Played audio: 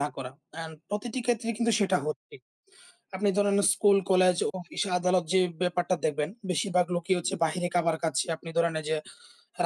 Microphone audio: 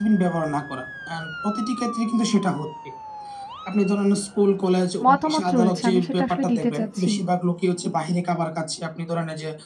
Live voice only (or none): মতামত রয়েছে। আমি সেটা আসলে দিতে চাচ্ছি।